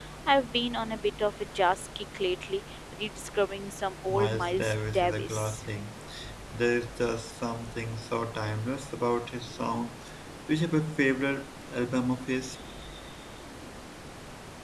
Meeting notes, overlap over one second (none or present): present